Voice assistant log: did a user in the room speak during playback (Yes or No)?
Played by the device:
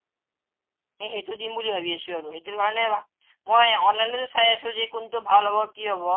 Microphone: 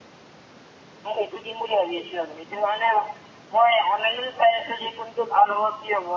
No